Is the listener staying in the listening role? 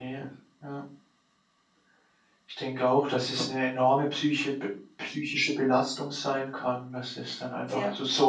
Yes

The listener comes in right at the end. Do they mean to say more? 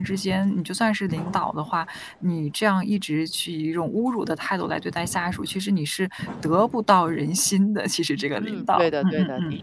Yes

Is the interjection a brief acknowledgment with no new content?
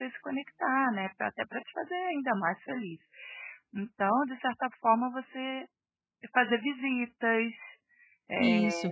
Yes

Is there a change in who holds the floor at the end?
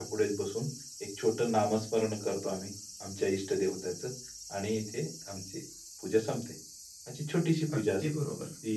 No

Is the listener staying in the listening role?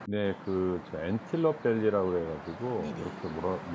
Yes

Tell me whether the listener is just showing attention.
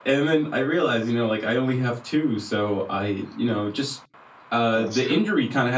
Yes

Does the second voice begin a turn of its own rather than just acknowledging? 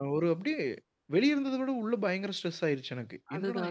Yes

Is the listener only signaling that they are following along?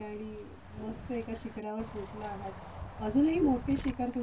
Yes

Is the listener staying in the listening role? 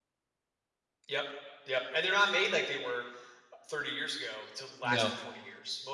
Yes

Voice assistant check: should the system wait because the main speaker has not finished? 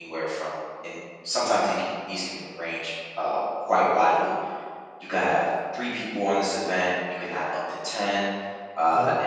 Yes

